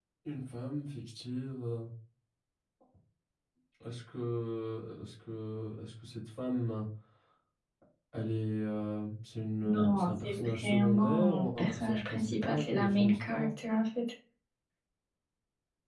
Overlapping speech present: Yes, from 9.6 s

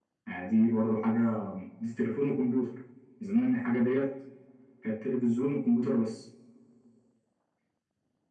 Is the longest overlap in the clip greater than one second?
No

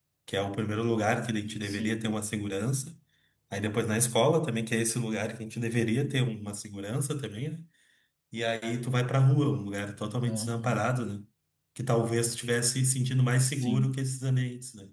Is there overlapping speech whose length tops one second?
No

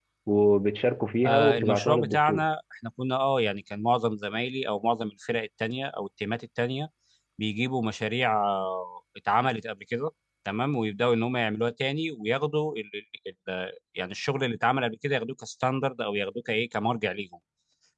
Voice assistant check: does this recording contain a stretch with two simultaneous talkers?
Yes, from 1.2 s

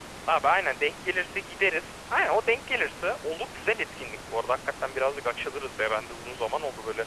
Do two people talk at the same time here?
No

